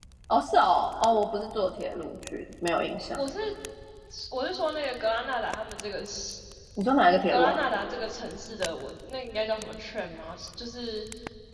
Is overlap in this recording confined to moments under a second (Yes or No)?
Yes